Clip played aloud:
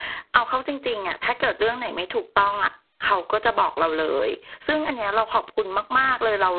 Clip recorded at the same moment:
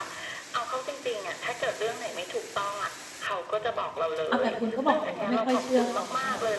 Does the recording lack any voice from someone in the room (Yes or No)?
No